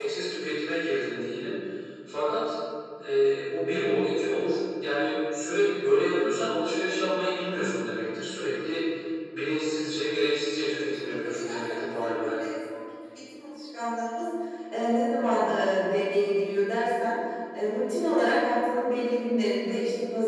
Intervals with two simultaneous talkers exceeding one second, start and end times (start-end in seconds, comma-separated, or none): 10.6-12.3